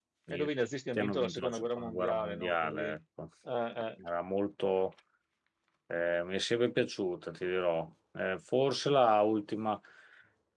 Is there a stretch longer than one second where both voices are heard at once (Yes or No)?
Yes